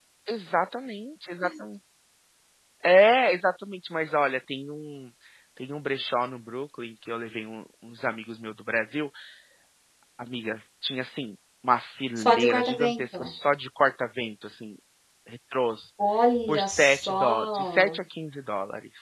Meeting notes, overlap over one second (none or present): present